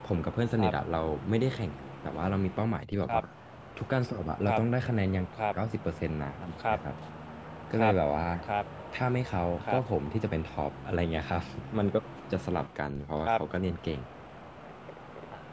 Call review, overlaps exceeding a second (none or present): none